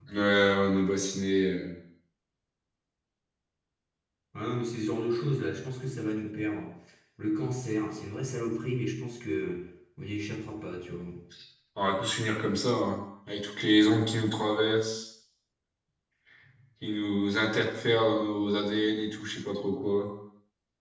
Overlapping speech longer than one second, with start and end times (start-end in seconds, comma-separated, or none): none